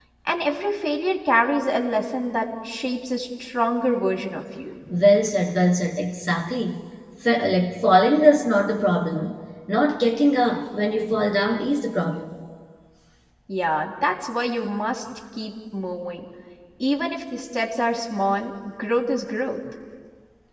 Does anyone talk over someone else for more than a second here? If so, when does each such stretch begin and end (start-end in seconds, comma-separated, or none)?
none